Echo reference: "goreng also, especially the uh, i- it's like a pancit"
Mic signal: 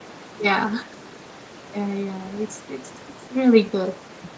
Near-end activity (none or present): present